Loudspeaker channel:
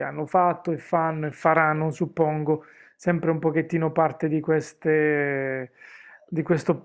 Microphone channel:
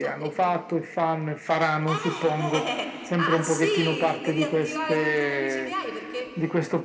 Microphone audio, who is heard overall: both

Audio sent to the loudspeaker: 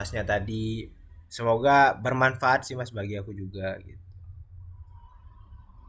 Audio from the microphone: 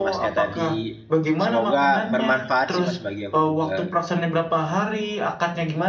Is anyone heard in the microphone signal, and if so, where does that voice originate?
both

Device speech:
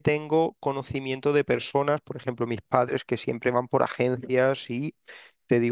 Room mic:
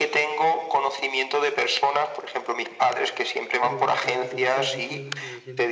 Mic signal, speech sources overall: both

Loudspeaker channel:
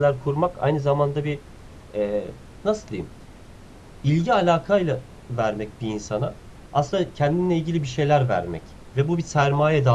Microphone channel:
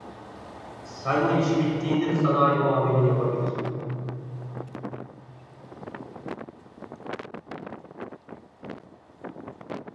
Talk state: user only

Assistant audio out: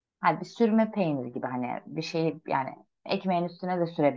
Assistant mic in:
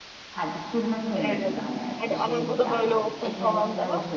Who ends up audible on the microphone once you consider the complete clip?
both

